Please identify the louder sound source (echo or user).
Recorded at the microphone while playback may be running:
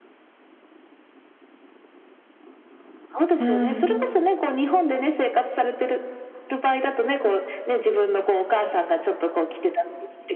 user